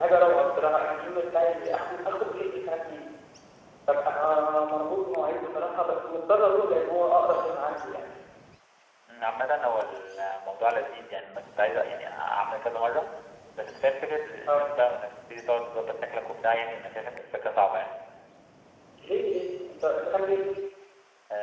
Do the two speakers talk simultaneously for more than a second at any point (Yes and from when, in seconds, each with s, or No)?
No